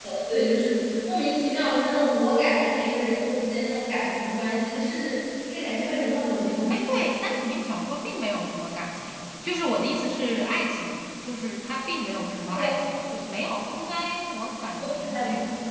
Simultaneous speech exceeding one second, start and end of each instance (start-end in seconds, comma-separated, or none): none